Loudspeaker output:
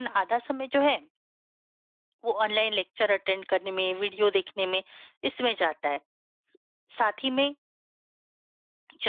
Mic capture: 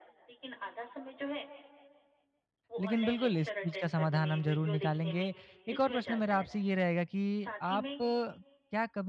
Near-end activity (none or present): present